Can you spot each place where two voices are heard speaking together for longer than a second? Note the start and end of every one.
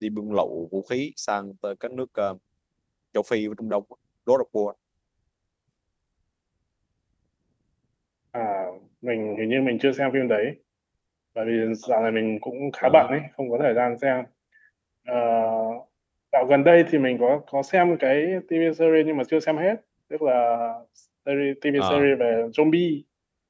none

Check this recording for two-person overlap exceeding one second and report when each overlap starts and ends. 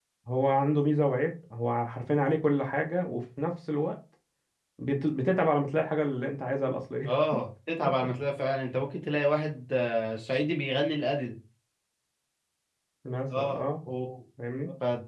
none

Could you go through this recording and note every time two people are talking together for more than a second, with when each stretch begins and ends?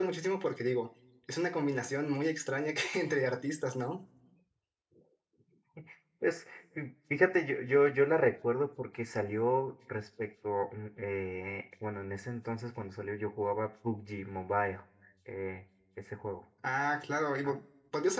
none

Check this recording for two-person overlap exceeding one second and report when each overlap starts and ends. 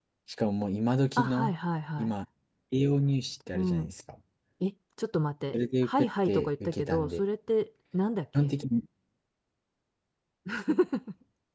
5.5-7.2

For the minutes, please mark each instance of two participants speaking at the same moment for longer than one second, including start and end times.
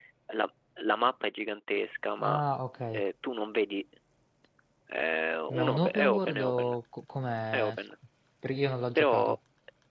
5.5-6.8

